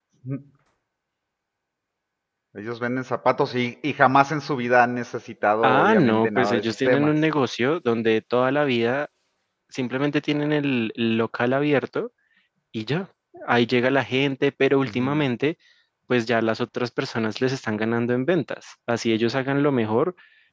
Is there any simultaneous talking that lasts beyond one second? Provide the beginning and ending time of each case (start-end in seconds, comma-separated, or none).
5.6-7.1